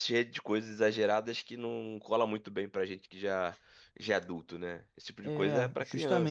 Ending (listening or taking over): taking over